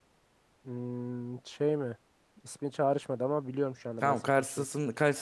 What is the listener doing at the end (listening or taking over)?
taking over